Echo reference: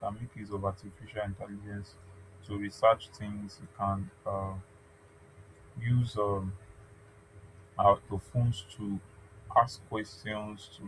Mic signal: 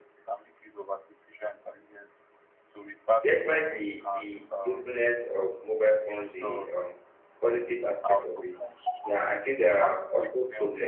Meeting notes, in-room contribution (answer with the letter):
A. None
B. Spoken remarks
B